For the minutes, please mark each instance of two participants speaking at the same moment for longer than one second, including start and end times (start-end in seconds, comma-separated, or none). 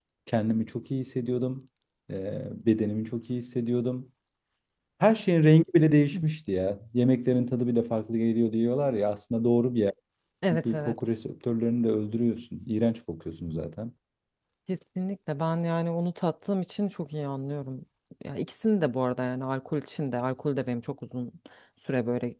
none